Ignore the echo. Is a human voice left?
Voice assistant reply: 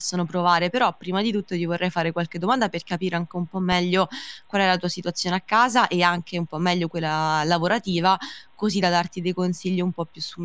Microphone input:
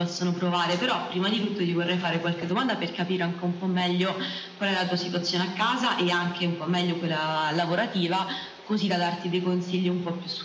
No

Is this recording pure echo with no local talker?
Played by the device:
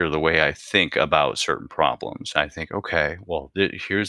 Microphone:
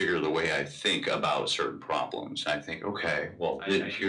No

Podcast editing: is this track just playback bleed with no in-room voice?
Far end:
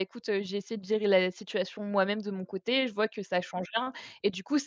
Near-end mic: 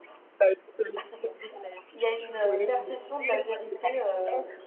No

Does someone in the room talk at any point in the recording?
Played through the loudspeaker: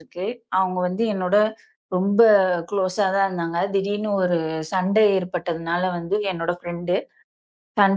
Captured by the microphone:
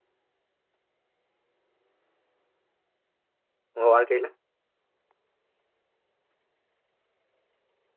Yes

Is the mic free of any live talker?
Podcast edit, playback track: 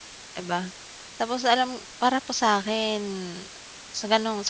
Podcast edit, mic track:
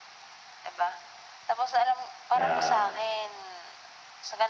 No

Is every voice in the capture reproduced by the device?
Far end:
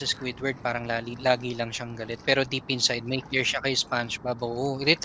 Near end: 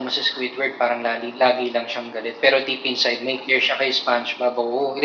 Yes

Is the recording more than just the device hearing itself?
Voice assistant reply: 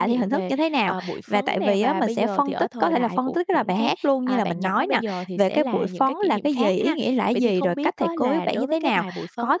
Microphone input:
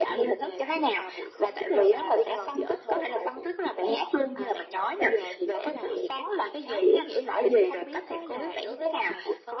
No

